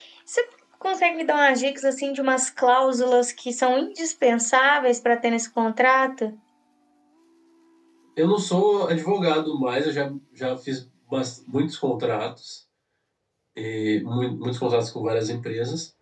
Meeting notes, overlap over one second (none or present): none